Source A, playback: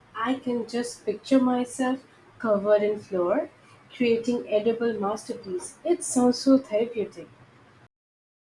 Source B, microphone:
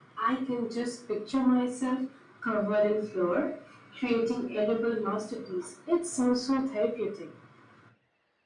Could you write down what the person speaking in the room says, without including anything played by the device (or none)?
none